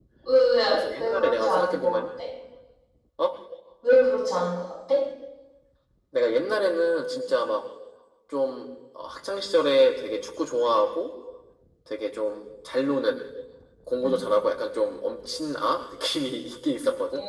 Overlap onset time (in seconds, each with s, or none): 0.7 s